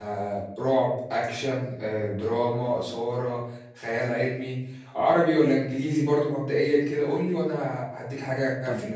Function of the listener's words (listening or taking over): taking over